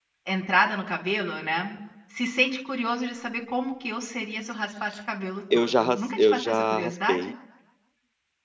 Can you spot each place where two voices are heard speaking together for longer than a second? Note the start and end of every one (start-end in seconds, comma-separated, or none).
5.5-7.3